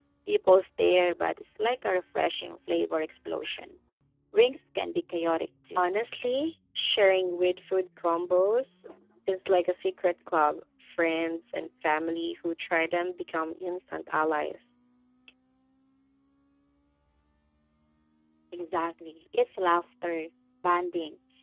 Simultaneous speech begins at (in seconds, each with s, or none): none